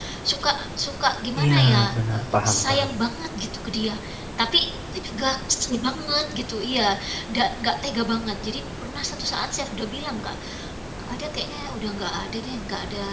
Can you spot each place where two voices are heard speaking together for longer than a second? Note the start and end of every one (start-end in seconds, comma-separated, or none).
1.4-2.9